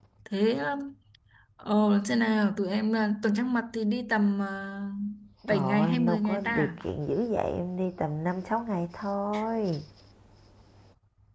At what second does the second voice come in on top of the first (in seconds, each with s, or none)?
5.5 s